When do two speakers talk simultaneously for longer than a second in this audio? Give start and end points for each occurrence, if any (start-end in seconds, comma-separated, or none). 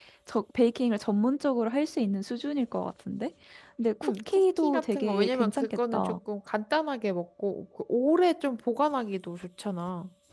4.0-6.1